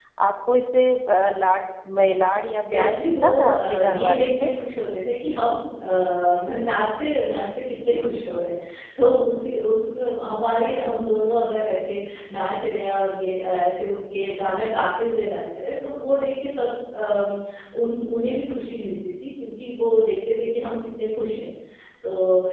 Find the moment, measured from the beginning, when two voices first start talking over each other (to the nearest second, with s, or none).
3 s